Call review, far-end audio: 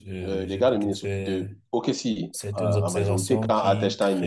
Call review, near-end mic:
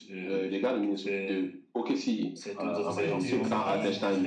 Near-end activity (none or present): present